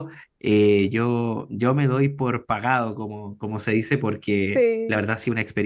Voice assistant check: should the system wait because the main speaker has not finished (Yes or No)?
Yes